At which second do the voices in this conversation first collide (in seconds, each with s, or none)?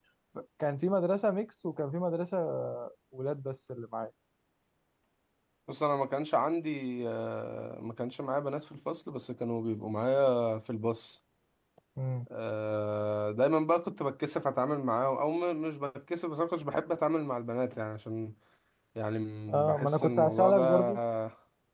19.5 s